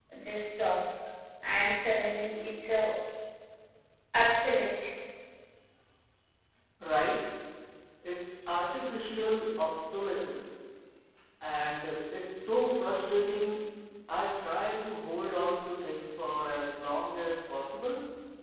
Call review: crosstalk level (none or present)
none